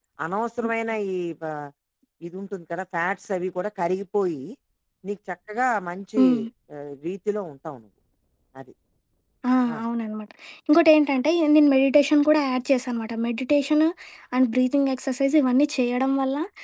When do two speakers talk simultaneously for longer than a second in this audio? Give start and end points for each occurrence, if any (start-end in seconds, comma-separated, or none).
none